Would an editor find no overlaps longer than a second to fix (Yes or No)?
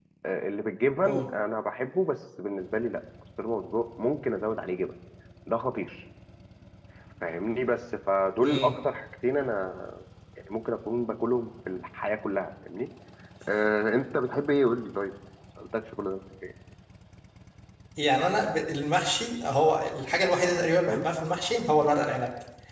Yes